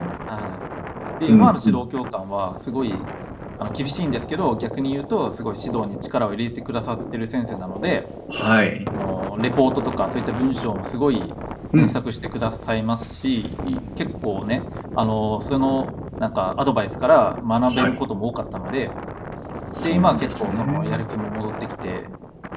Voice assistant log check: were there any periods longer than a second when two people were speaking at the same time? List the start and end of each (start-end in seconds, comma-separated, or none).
19.8-21.0